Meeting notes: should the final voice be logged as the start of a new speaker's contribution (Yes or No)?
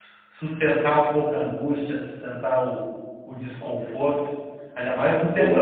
No